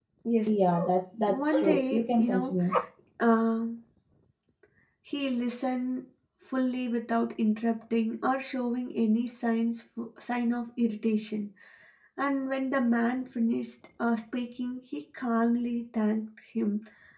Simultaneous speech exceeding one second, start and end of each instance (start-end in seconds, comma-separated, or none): 1.3-2.6